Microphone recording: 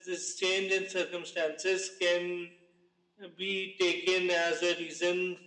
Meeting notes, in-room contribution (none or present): none